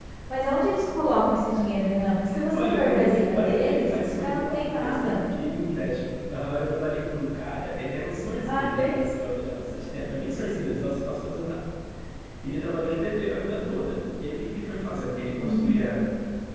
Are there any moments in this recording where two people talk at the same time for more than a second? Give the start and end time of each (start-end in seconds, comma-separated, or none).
2.5-5.2